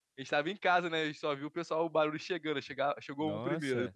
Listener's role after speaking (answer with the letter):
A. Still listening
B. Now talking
B